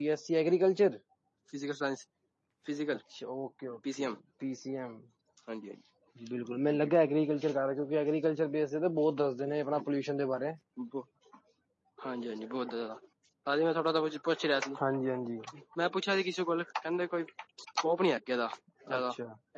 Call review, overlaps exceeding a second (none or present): none